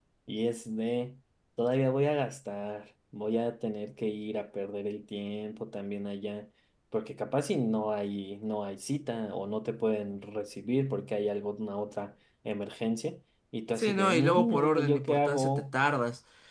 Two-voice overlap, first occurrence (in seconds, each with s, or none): 13.8 s